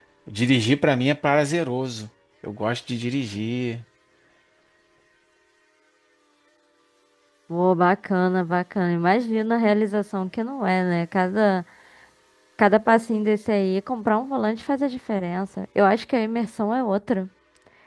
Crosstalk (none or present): none